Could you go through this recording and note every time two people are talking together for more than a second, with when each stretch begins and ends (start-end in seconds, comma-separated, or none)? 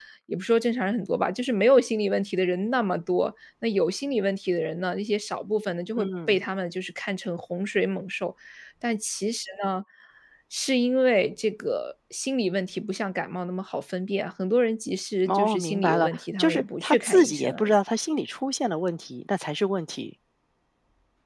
15.3-17.8